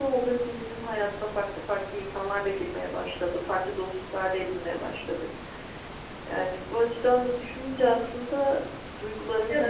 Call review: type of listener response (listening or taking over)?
listening